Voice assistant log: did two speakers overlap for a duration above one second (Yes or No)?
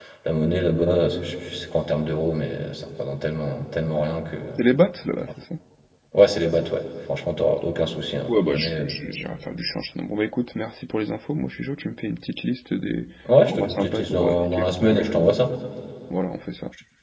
Yes